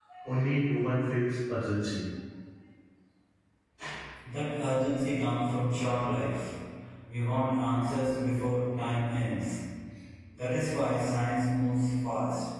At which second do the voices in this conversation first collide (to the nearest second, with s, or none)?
none